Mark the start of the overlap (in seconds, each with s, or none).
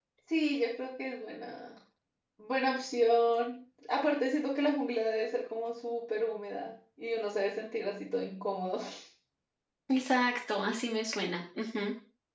none